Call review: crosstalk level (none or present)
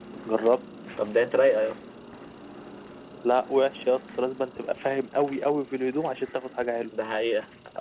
none